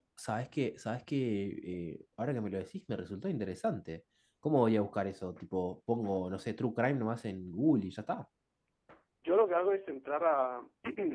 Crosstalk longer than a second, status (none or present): none